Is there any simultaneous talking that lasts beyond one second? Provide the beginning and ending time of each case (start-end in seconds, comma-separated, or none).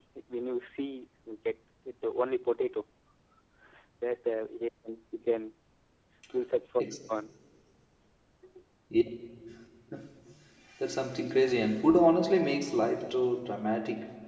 none